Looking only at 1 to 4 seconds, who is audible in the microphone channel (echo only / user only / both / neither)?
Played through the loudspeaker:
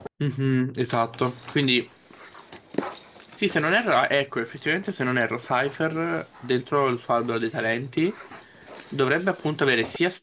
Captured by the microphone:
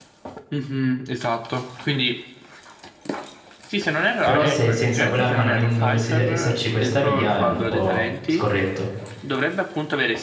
echo only